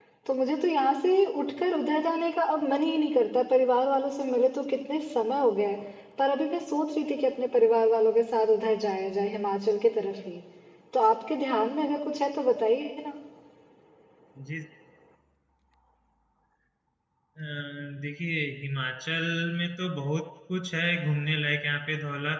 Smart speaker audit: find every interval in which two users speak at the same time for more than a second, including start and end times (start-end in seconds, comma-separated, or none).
none